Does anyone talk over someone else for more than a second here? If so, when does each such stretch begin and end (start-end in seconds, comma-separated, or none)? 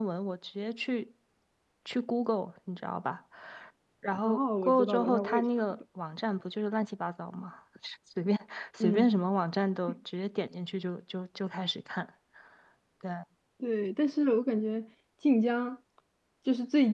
4.2-5.8